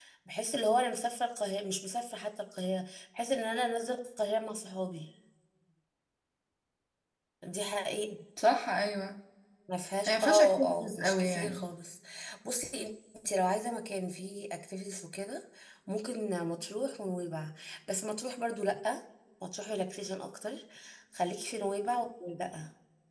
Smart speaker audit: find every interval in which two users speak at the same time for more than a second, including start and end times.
10.1-11.7

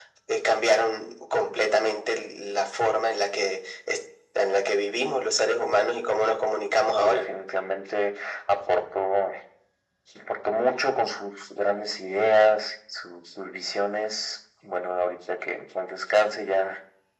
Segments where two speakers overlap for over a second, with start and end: none

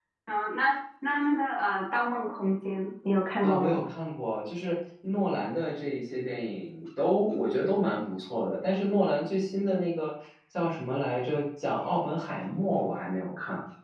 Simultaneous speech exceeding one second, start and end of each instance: none

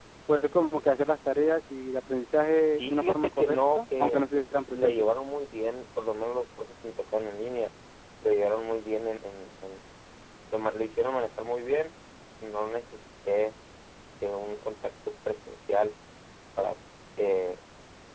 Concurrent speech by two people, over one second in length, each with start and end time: 2.8-4.2

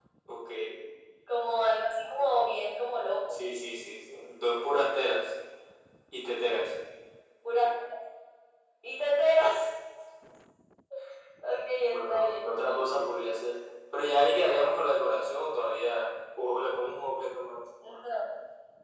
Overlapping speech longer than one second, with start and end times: 11.8-13.3

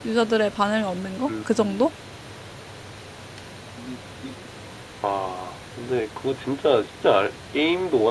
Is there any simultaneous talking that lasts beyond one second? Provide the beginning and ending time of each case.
none

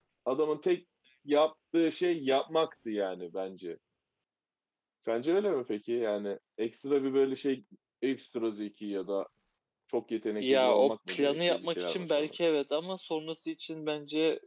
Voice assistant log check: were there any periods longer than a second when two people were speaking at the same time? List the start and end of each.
10.4-12.4

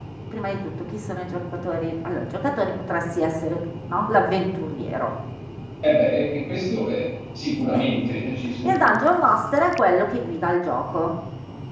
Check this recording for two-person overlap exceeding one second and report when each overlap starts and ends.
none

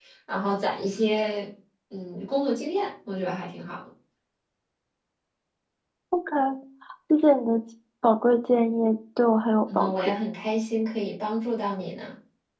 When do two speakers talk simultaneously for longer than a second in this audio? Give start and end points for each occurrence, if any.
none

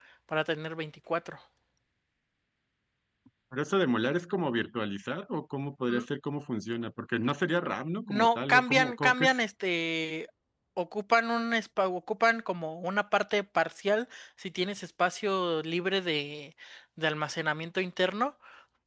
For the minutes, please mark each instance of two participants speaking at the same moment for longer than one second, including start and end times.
8.1-9.3

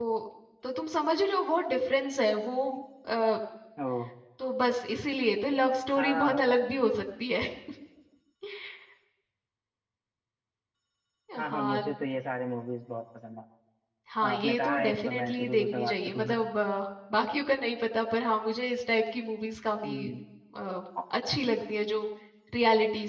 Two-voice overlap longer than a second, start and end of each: 14.3-16.4

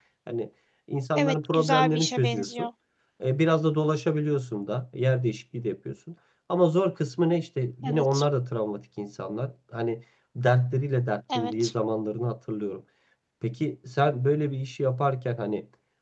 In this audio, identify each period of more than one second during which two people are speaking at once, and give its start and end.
1.2-2.7

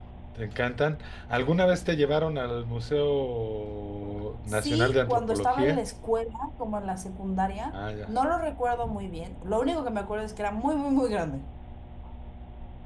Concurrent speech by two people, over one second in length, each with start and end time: 4.5-5.8

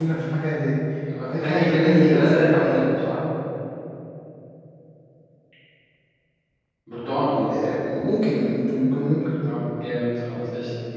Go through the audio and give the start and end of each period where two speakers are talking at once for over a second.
1.4-2.8

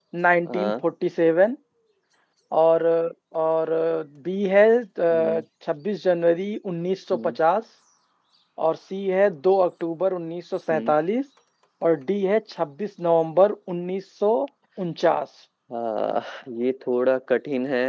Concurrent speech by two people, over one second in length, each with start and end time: none

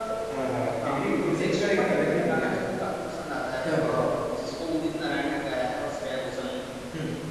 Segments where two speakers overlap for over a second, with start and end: 0.8-2.6

